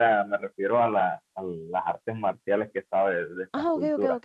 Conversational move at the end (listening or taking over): taking over